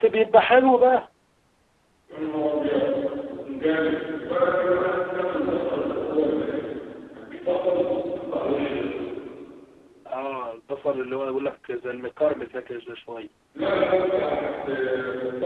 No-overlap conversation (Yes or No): Yes